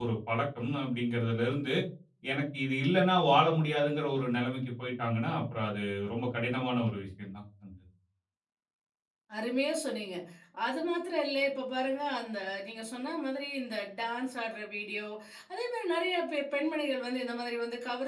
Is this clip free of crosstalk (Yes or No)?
Yes